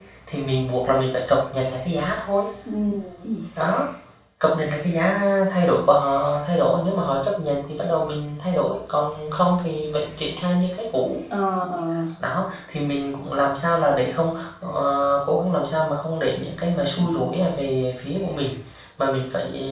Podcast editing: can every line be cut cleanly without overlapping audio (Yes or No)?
Yes